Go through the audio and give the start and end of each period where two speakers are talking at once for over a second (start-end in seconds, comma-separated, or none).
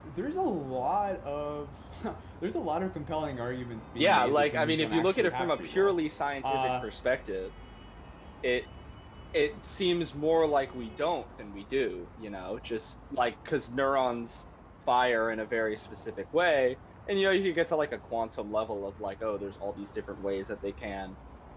4.0-6.0